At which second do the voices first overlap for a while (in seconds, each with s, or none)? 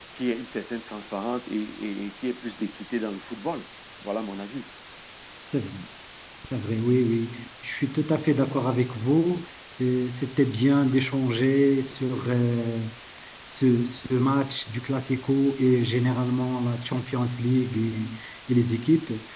none